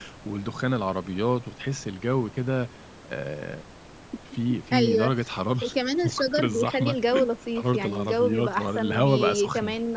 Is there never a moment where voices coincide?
No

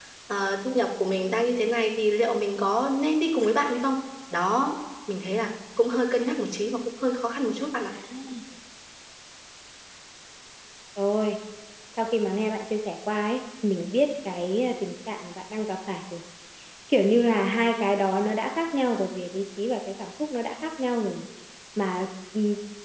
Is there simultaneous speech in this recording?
No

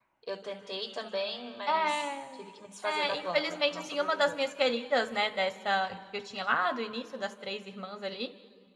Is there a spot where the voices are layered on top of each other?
Yes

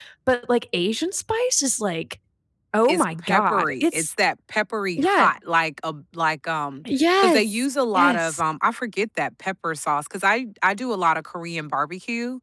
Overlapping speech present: Yes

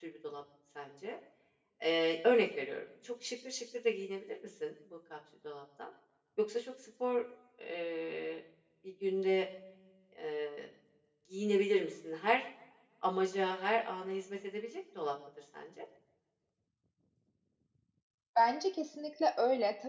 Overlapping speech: No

